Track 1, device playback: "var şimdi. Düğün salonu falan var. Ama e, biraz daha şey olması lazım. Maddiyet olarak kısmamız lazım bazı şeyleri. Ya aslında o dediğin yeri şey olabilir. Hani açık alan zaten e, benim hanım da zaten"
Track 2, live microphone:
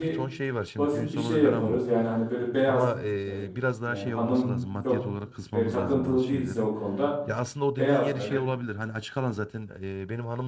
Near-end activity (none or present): present